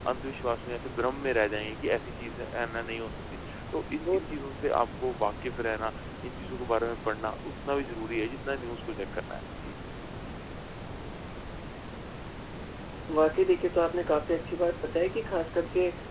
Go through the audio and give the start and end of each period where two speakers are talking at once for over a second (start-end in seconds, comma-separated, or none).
none